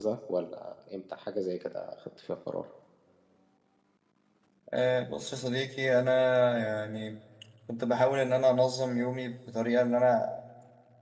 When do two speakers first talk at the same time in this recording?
none

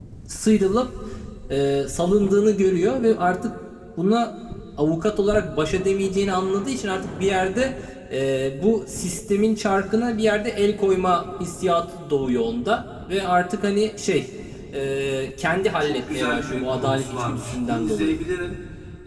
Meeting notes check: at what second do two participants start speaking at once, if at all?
15.8 s

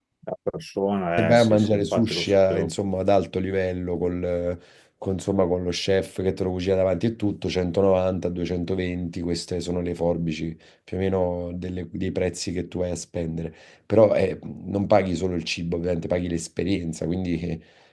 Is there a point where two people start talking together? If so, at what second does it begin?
1.2 s

